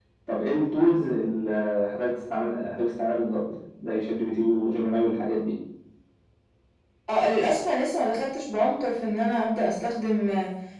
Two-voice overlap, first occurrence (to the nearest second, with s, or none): none